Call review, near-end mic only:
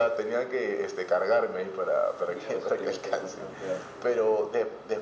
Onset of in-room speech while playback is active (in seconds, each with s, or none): 2.2 s